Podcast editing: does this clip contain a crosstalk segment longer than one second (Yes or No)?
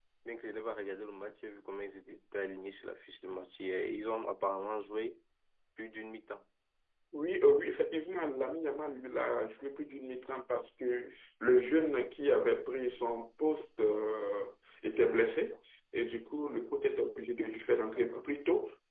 No